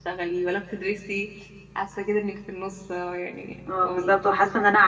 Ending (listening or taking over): taking over